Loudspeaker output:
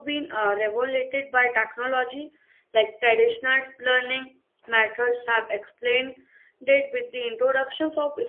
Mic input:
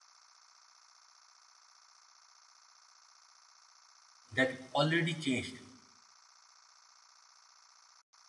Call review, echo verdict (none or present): none